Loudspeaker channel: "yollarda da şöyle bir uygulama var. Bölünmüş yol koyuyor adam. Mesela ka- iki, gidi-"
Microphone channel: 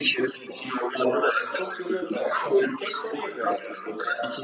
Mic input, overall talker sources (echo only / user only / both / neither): both